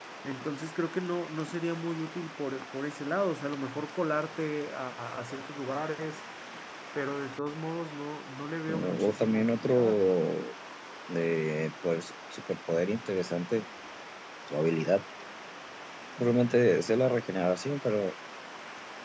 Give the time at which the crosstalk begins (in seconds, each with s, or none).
8.7 s